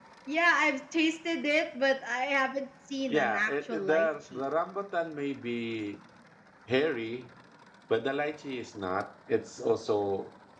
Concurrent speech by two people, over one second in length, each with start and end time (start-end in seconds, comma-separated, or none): 3.1-4.4